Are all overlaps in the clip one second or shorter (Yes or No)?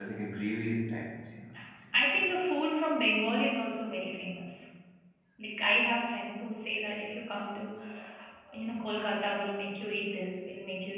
Yes